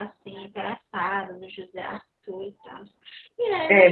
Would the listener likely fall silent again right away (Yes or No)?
No